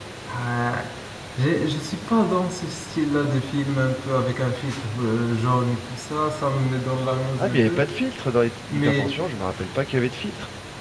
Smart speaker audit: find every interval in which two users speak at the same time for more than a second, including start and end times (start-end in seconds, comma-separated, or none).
none